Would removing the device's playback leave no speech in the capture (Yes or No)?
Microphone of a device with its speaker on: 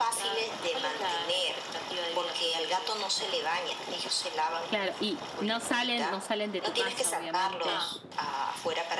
No